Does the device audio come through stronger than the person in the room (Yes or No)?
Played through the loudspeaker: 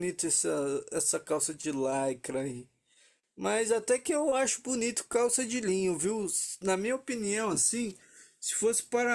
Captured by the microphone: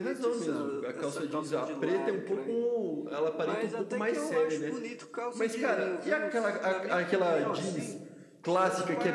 No